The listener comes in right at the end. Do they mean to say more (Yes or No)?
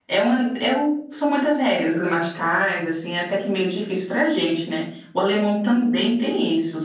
No